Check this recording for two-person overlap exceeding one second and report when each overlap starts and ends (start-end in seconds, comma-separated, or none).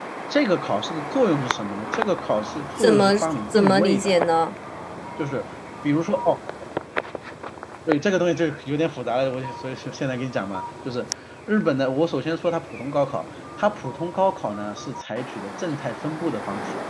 2.8-4.1